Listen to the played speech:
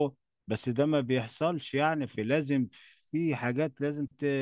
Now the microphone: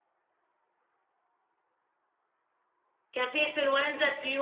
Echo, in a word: none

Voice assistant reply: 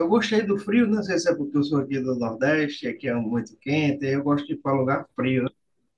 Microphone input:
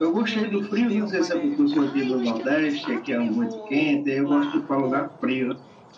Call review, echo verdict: present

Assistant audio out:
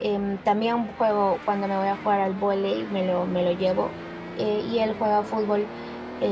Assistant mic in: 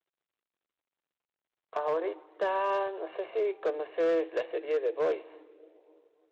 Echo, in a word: none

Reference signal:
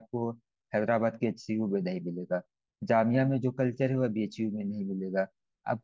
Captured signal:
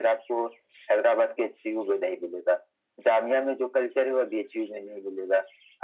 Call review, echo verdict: present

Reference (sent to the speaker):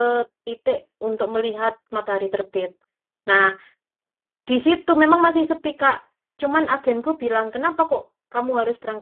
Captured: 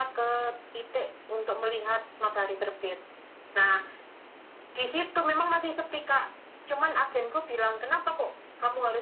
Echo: present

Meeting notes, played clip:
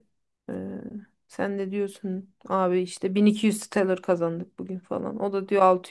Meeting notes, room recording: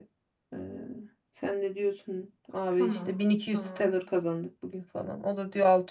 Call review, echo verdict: present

